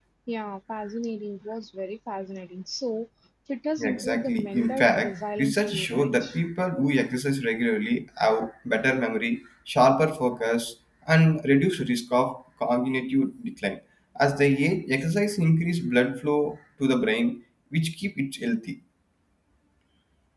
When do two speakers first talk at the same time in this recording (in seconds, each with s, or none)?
3.8 s